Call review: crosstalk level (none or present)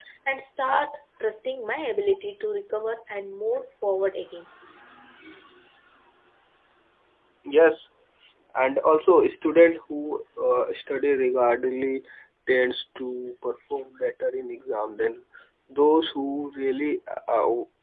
none